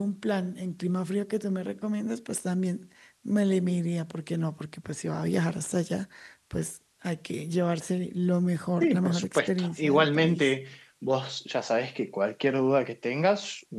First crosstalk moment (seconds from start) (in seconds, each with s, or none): 8.8 s